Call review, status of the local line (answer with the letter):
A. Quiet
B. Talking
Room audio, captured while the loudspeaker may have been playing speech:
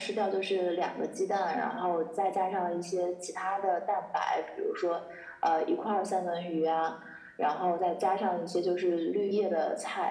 A